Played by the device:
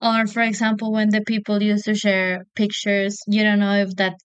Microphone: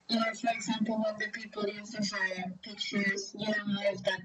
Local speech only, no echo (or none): none